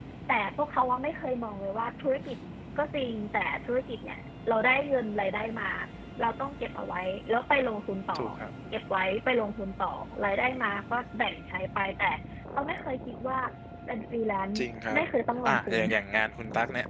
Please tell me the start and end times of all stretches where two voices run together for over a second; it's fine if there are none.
none

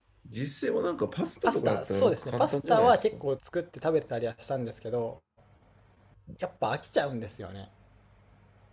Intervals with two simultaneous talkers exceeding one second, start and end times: 1.4-3.1

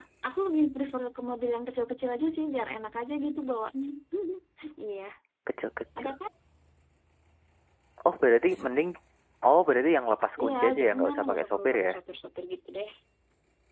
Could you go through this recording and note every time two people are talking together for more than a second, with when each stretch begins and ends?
10.4-11.9

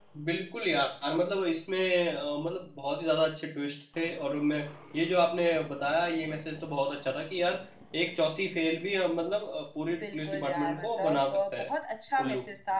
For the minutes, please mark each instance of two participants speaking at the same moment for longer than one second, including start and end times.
10.0-11.7

